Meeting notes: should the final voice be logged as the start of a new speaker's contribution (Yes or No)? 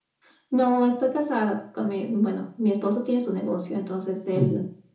No